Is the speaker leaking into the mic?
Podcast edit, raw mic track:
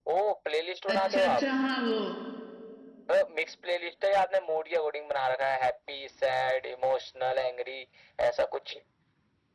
Yes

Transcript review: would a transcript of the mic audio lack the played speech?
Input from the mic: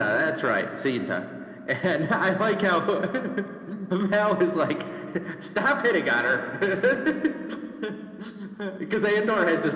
No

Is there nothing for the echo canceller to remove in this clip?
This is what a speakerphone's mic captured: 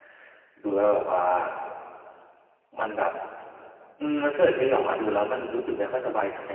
Yes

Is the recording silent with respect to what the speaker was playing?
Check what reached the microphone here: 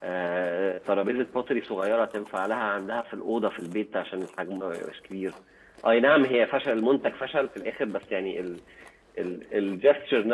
Yes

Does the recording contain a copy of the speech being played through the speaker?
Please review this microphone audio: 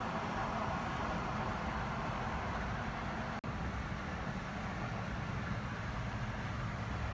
No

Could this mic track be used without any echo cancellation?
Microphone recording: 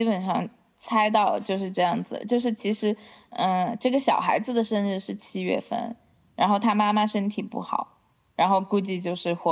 No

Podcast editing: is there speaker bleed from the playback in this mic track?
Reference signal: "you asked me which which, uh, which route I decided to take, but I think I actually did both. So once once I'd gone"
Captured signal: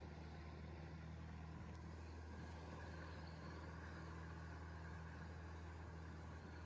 No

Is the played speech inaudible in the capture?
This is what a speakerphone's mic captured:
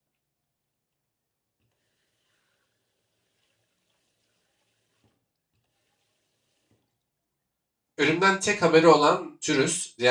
Yes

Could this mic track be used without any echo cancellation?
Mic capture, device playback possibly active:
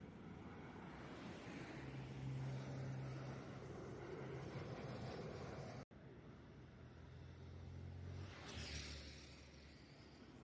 Yes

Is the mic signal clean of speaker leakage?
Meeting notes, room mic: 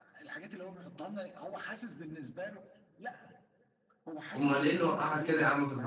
No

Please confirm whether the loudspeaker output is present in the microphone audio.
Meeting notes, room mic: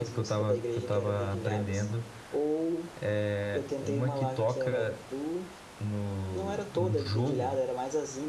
Yes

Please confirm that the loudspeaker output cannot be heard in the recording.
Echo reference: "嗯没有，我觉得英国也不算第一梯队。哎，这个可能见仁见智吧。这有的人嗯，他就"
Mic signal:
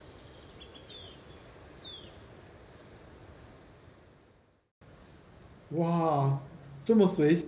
Yes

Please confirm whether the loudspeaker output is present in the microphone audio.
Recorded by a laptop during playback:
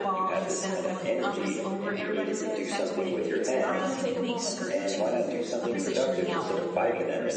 Yes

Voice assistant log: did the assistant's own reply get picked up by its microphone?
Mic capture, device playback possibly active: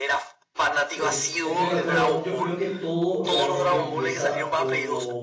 Yes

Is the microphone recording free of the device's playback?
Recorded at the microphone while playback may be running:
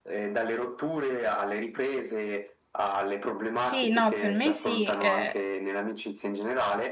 No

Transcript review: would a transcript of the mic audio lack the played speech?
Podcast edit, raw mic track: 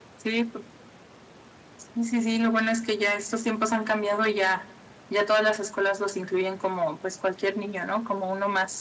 No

